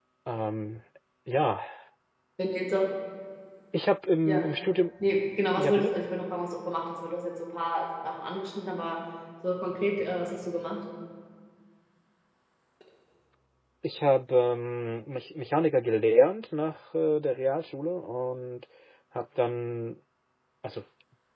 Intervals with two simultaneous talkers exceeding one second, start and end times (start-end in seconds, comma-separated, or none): none